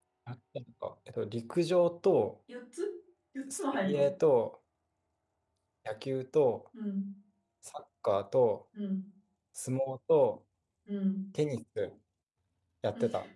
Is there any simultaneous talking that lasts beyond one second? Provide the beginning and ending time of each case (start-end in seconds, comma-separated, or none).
none